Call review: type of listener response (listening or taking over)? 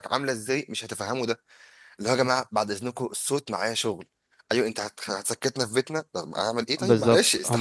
taking over